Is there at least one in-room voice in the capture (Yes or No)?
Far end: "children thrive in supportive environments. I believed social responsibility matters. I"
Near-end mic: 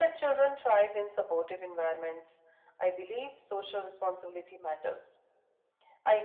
No